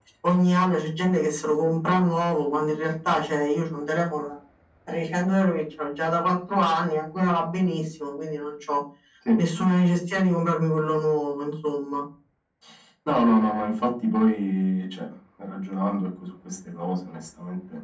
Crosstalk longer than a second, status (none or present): none